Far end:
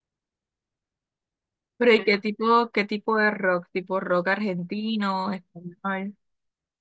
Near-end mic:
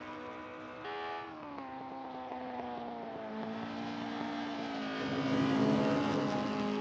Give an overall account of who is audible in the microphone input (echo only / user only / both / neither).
neither